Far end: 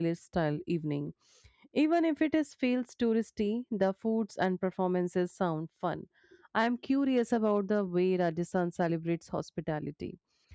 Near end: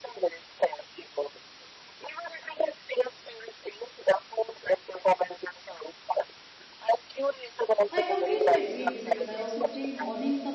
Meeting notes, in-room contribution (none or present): present